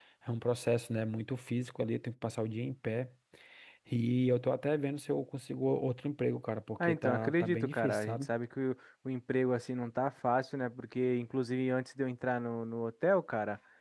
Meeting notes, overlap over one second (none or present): present